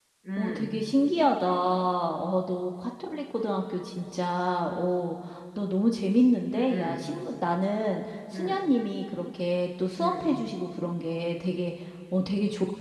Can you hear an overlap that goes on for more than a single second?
No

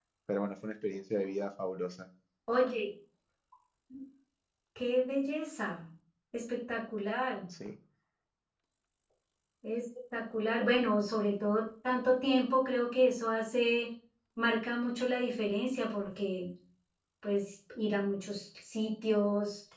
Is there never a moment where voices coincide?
Yes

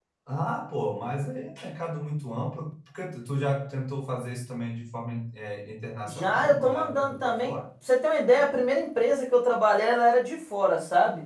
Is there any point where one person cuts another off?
Yes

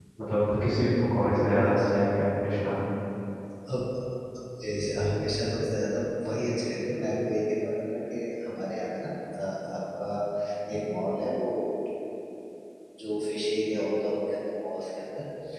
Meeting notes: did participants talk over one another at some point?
No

